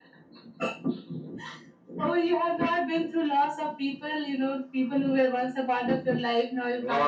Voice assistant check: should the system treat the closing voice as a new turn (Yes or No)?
Yes